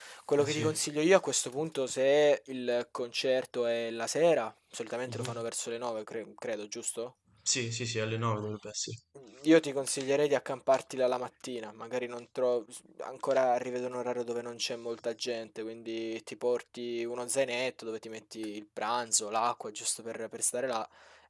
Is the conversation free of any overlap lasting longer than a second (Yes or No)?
Yes